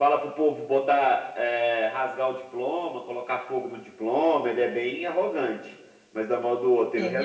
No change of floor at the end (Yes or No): Yes